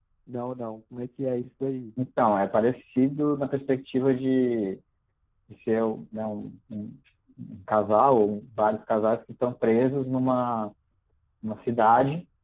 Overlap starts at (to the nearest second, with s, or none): none